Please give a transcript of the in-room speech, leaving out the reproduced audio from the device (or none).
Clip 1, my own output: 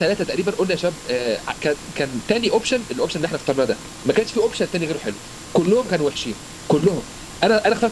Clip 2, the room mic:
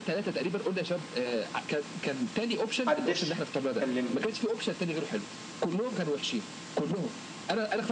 محدش كلمني